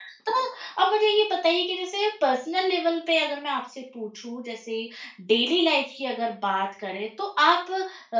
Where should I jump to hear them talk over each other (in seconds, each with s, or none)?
none